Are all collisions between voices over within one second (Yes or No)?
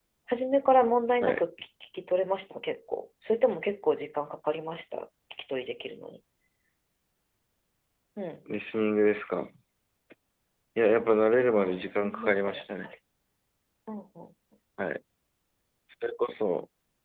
No